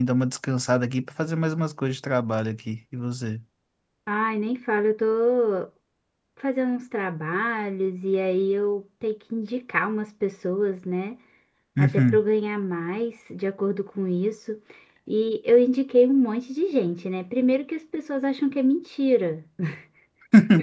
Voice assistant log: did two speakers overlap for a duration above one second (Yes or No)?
No